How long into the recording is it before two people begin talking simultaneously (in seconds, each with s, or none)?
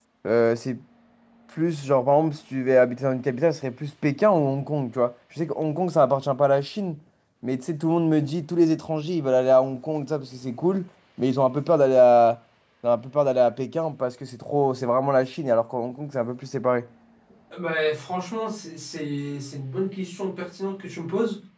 none